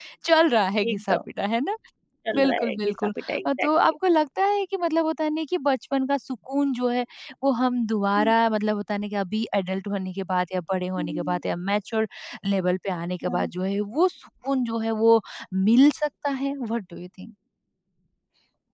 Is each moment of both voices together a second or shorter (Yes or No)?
No